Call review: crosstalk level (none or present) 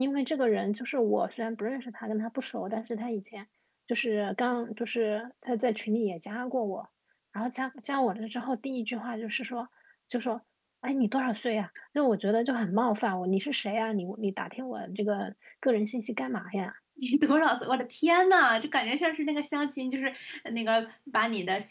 none